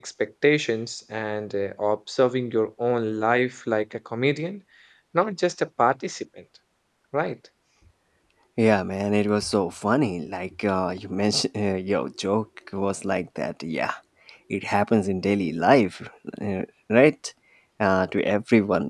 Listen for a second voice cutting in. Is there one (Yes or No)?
No